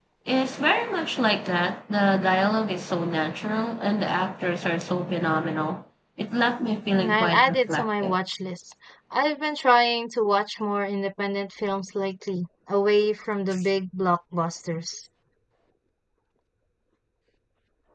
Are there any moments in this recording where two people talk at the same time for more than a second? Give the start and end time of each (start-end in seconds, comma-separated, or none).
6.9-8.2